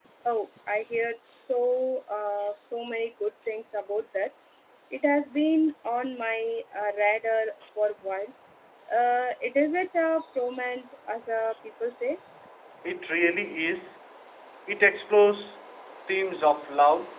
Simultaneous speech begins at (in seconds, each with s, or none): none